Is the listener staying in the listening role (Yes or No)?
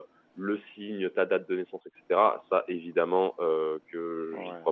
Yes